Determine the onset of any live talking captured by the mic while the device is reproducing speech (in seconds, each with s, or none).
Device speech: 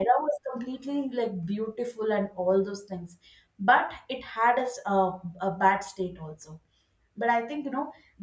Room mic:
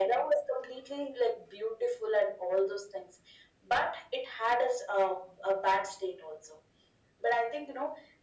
none